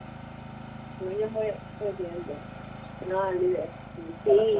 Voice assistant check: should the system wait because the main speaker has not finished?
No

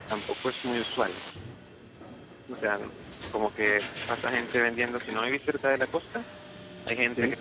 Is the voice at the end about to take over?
No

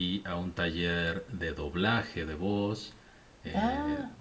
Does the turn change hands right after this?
No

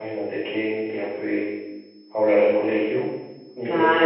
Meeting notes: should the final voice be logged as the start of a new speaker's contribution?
Yes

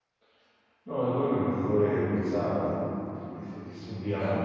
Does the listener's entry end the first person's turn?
No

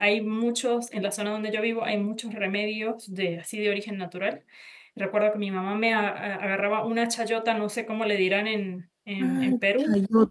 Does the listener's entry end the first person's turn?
Yes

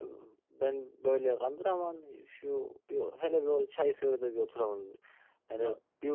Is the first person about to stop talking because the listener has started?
No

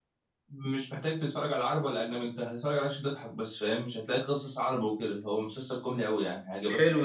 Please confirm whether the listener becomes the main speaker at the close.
Yes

